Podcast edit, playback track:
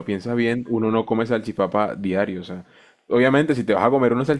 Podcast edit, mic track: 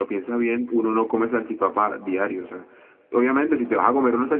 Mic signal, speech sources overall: echo only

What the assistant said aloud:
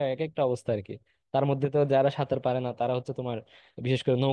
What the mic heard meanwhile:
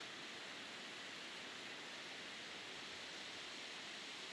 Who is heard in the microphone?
neither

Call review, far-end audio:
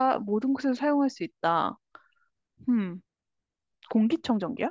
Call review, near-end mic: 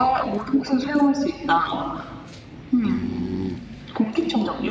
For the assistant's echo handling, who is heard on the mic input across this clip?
echo only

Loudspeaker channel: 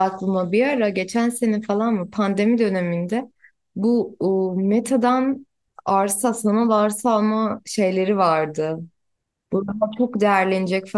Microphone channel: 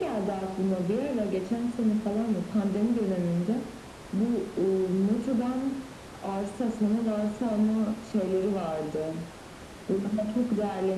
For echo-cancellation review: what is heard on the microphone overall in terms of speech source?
echo only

